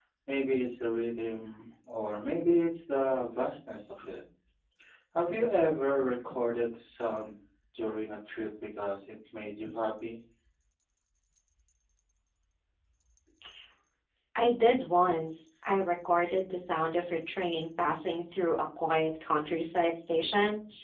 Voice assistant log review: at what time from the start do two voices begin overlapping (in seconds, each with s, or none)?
none